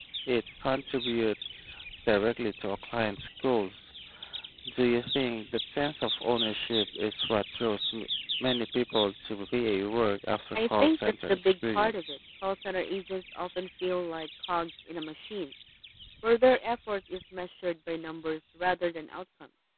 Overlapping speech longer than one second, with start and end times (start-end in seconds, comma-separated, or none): 10.6-12.2